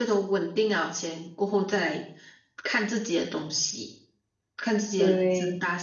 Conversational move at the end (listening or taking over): listening